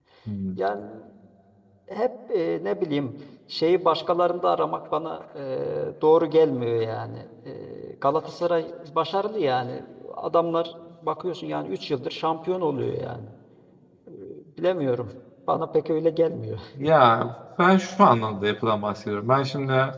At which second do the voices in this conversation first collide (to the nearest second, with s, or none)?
none